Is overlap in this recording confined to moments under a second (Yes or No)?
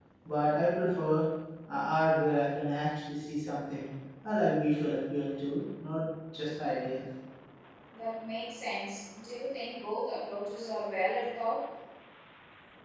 Yes